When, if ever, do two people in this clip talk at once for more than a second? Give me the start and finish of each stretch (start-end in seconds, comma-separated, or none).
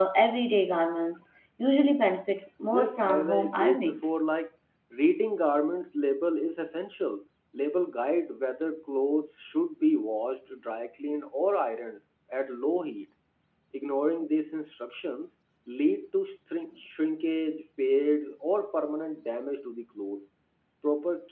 2.7-4.0